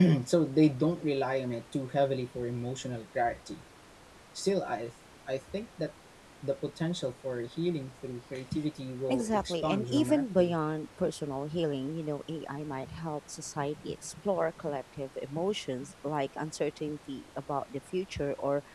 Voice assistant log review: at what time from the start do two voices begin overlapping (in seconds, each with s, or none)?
9.1 s